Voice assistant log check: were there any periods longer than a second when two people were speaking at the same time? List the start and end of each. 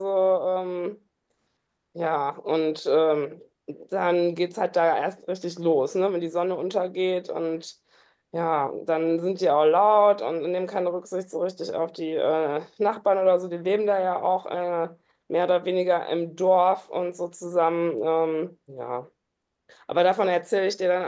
none

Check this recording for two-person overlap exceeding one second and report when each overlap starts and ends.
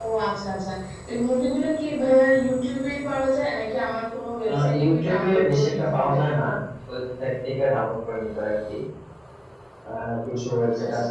4.5-6.1

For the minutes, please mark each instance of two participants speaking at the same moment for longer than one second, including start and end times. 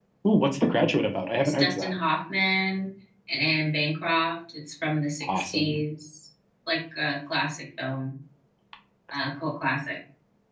none

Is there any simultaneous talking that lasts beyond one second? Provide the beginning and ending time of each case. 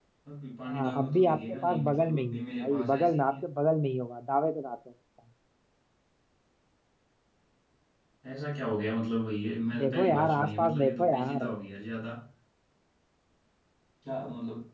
0.7-3.3, 9.8-11.5

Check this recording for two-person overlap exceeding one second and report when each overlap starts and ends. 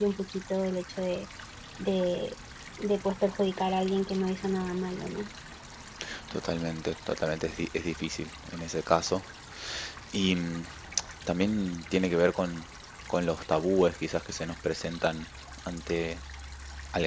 none

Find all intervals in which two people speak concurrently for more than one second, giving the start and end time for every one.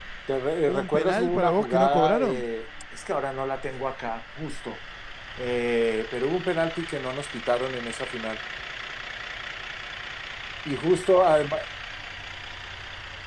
0.7-2.4

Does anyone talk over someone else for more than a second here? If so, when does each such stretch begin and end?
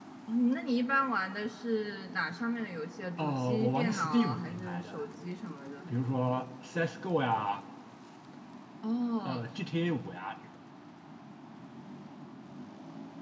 3.2-5.0

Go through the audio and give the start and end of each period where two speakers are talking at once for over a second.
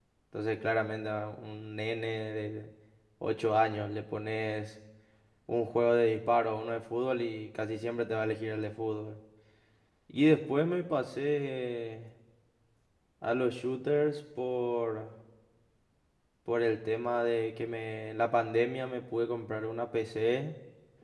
none

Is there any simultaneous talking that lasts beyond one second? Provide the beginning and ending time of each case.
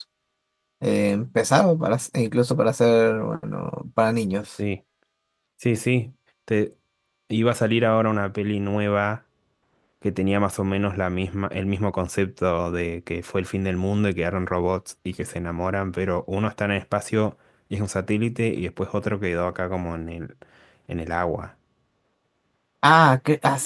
none

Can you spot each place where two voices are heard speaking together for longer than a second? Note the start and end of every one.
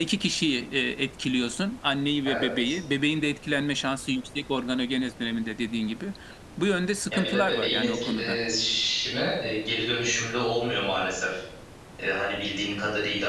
7.1-8.4

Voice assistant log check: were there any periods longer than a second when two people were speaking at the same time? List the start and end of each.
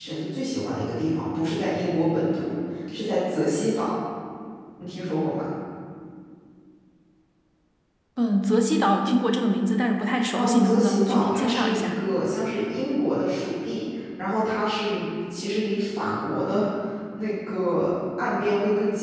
10.3-11.9

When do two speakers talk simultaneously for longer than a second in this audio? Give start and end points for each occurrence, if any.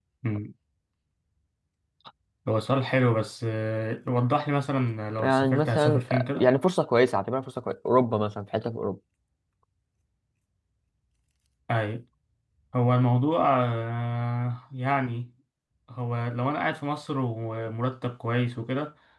5.2-6.5

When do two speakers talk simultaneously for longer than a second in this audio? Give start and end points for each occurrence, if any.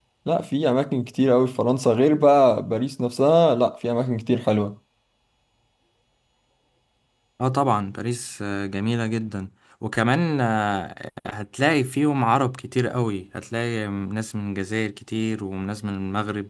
none

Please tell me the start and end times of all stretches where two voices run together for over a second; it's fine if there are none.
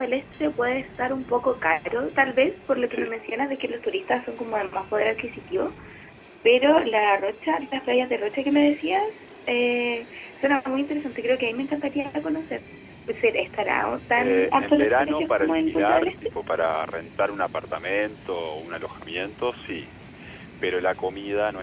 14.2-16.1

